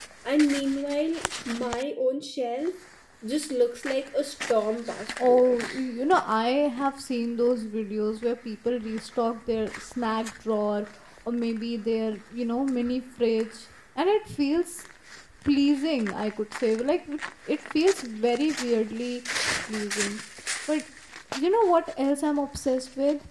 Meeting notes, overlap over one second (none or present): none